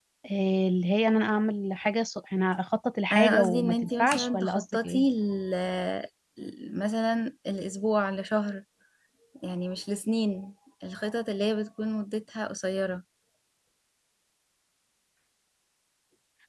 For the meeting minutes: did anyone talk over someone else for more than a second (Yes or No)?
Yes